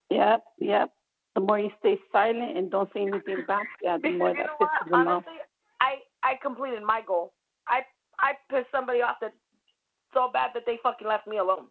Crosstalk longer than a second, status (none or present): present